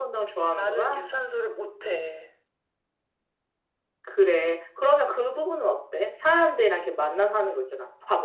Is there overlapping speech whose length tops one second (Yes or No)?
No